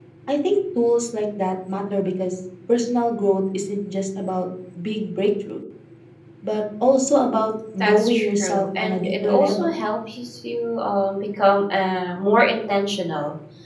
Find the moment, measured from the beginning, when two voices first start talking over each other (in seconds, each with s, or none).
7.8 s